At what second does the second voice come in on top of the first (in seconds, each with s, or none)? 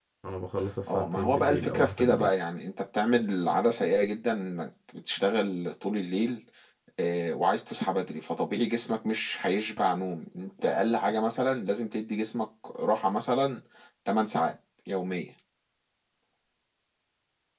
0.9 s